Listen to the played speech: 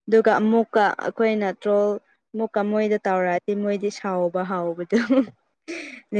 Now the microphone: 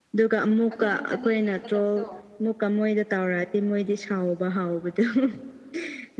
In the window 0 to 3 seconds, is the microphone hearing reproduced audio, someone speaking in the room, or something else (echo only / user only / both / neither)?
both